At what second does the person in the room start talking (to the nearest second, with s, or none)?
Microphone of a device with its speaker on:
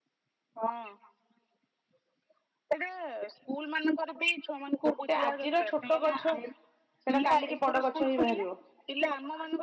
5 s